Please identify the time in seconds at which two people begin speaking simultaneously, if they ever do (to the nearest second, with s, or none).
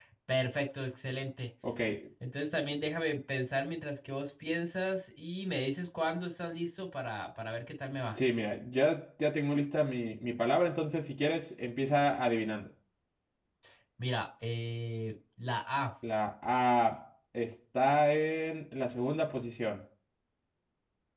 none